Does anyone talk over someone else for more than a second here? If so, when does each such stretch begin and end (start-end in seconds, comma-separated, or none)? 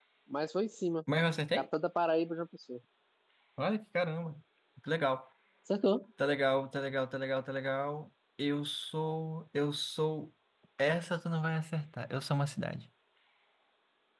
none